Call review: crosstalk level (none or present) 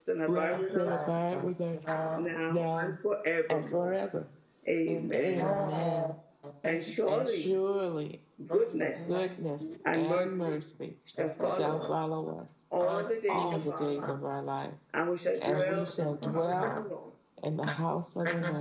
present